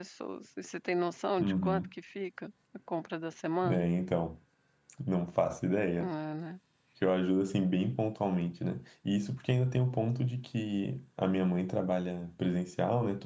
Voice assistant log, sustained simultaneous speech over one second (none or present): none